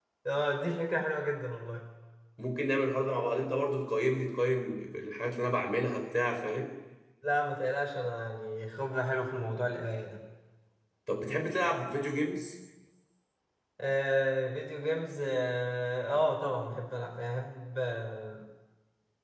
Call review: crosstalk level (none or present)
none